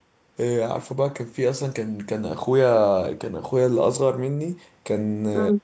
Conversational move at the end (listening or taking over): listening